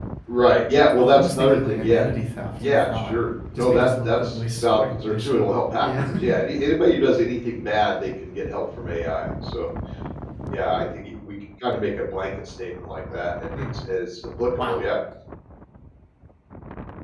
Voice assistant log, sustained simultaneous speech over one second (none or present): present